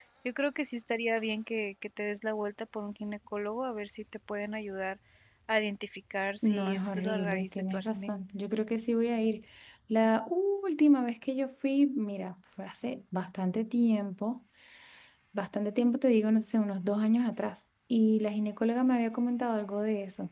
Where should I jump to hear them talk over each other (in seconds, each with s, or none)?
6.4 s